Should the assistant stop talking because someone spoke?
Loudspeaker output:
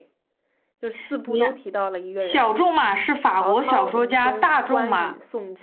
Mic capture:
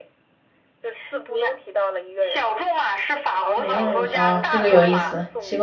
Yes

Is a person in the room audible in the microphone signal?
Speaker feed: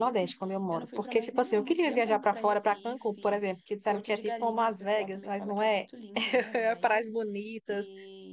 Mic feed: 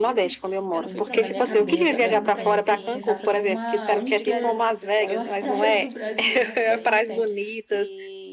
Yes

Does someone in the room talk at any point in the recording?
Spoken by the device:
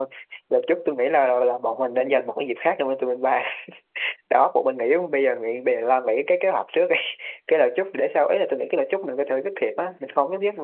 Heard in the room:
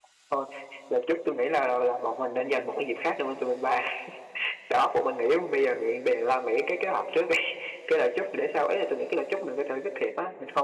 No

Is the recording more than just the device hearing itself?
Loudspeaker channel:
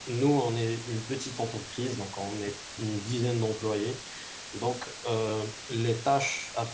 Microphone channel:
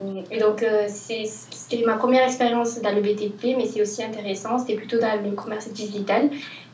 Yes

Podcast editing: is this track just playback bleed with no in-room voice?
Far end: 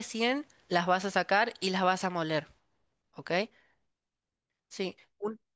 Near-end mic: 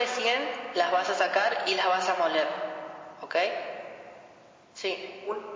Yes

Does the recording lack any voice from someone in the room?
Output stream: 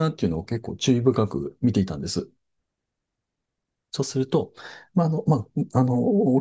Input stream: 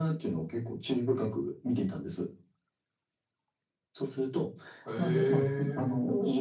No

